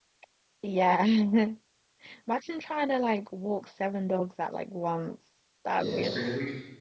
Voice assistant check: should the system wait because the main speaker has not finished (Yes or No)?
No